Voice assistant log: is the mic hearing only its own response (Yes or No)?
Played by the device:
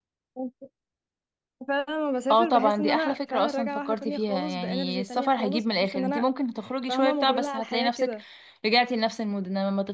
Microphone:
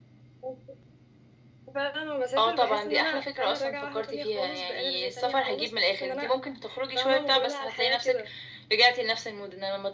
Yes